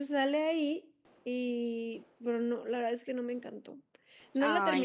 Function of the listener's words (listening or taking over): listening